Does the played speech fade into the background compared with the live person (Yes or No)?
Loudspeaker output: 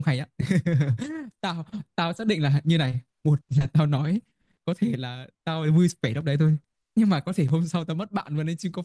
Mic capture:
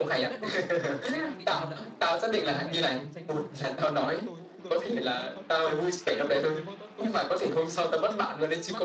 No